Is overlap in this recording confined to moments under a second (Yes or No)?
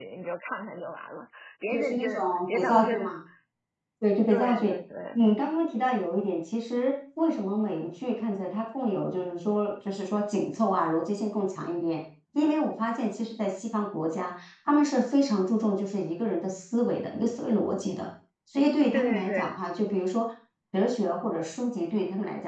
No